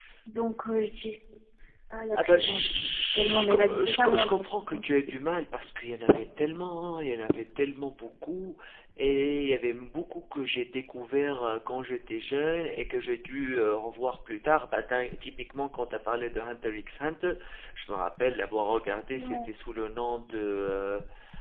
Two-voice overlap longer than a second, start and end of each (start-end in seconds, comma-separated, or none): 2.1-4.5